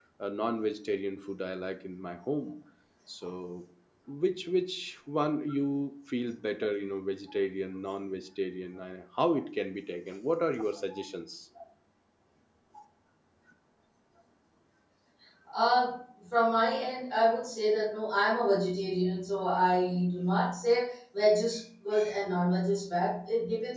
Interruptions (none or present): none